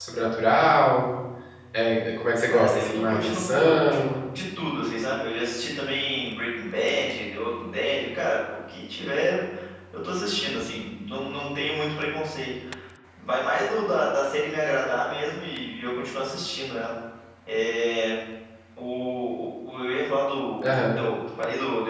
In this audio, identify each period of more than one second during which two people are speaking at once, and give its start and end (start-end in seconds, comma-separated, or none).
2.4-4.2